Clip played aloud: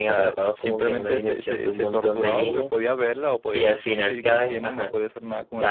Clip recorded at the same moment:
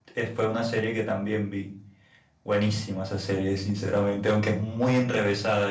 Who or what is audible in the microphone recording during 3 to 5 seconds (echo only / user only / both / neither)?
user only